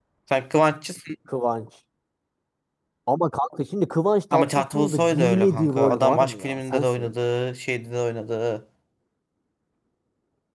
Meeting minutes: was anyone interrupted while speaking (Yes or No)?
Yes